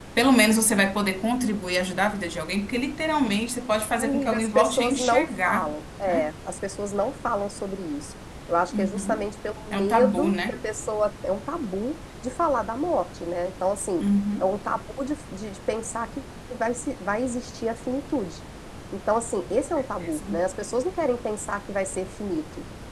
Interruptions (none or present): present